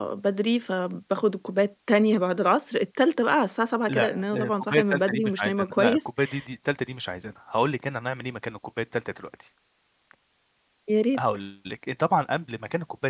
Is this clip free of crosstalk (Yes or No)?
No